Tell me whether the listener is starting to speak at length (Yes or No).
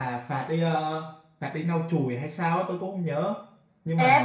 Yes